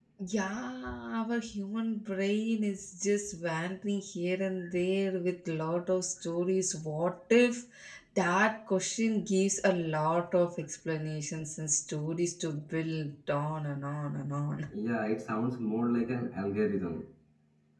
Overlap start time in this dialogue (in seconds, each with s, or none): none